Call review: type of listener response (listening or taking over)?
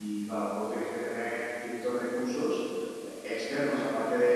listening